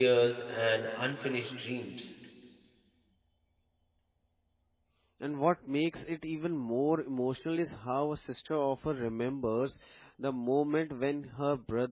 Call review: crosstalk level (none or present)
none